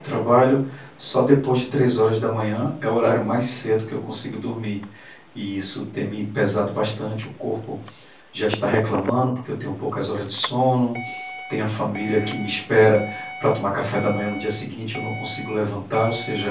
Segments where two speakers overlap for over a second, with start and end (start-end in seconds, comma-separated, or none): none